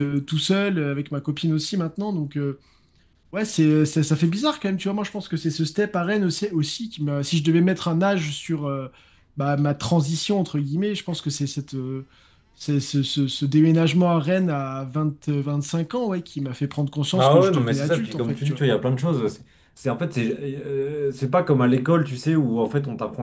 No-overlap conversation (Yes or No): No